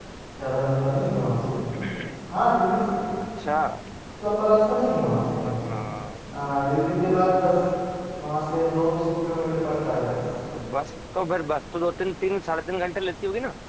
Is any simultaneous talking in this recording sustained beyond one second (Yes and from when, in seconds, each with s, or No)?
No